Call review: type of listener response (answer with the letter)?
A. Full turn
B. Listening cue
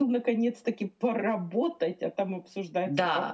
A